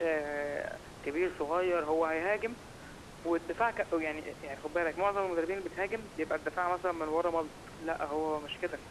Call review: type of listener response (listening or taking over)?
listening